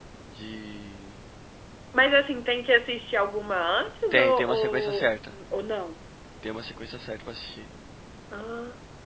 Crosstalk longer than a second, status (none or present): present